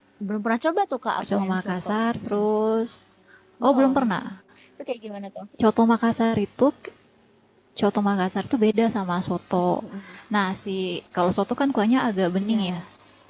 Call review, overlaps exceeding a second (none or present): present